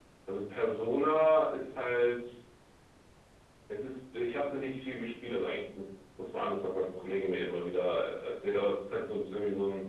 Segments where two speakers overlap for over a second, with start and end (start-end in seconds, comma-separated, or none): none